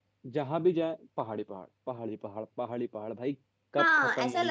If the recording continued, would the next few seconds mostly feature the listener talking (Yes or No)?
Yes